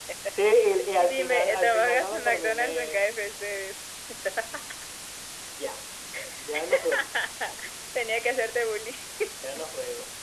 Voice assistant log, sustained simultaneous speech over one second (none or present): present